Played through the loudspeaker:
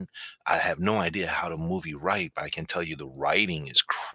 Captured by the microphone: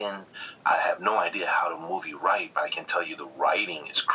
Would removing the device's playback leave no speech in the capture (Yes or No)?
Yes